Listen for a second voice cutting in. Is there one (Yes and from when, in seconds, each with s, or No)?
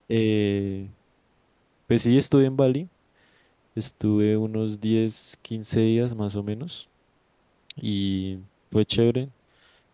No